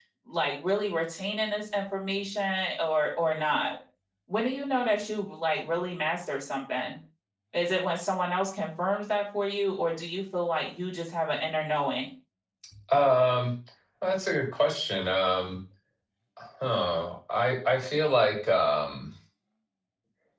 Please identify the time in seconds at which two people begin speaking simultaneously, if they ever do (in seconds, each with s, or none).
none